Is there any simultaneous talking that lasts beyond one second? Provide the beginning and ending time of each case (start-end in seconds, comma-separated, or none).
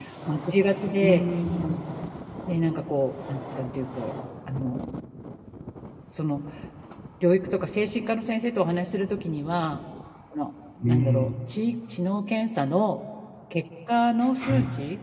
none